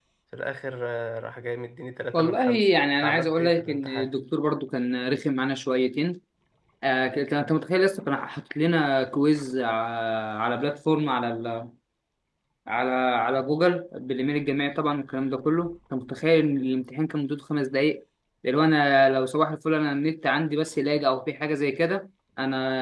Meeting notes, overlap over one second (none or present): present